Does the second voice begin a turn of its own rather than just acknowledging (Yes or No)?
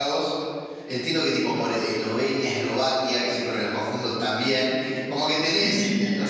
No